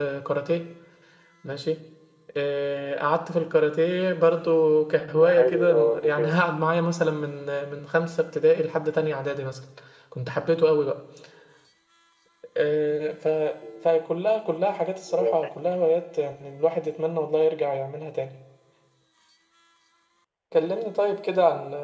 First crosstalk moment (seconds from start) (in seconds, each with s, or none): 5.2 s